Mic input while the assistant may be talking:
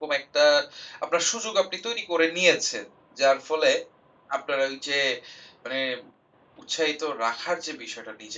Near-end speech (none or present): present